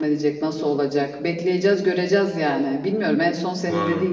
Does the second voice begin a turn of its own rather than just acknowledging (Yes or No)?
No